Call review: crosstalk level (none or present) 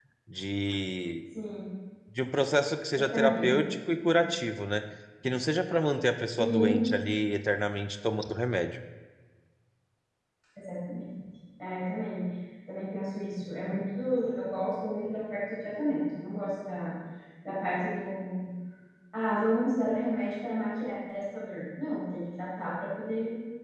present